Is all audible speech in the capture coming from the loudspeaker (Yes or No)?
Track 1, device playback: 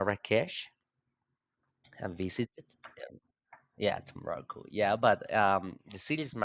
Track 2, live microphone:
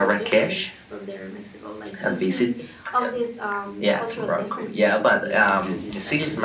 No